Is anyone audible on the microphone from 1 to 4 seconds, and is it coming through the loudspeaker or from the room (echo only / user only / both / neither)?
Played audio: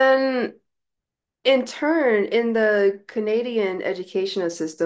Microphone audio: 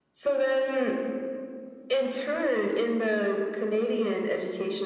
echo only